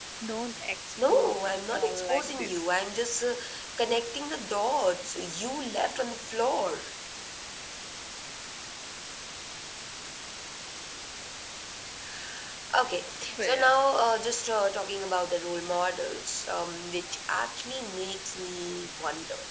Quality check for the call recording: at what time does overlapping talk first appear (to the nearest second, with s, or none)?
1 s